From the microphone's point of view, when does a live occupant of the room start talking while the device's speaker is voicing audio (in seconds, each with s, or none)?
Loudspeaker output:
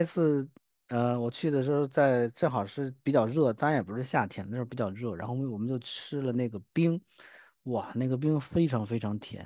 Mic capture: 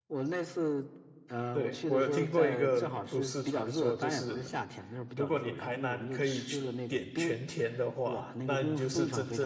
1.5 s